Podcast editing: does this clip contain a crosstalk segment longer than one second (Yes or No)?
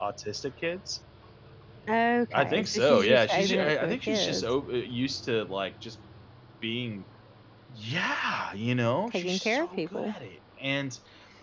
Yes